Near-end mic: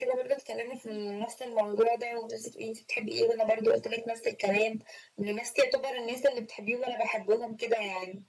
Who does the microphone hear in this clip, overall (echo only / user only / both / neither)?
echo only